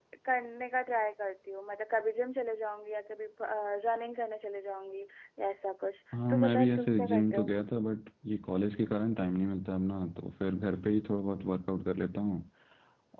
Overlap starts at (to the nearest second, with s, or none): 6 s